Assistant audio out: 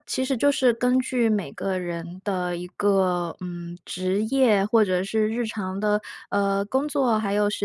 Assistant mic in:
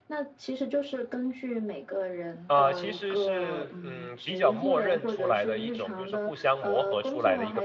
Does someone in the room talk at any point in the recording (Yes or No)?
Yes